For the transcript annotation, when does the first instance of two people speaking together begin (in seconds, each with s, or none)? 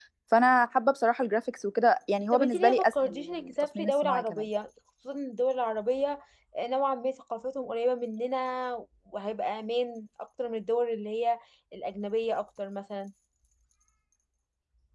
2.3 s